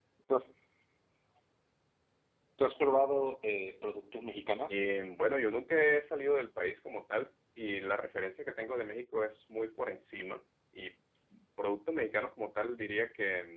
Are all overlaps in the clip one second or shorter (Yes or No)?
Yes